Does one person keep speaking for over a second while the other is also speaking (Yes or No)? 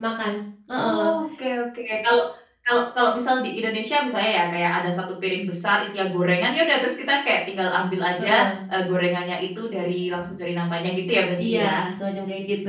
No